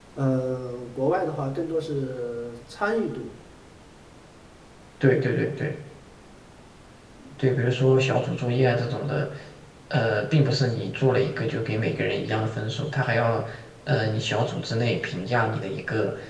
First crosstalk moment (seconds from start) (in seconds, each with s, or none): none